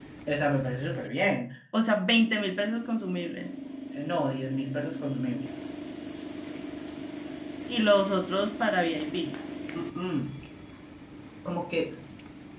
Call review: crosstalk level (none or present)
none